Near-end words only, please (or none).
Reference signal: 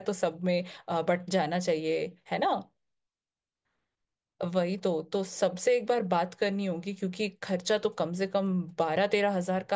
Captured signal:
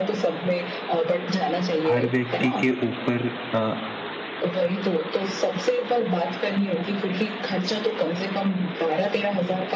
हर व्यक्ति के ऊपर अ,